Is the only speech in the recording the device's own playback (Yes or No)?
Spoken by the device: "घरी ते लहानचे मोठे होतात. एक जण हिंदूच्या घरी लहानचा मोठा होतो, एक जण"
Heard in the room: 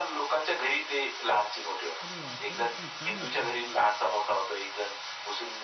No